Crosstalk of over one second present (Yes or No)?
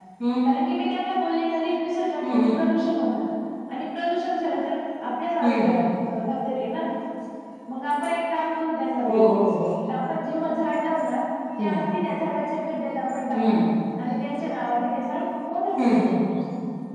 No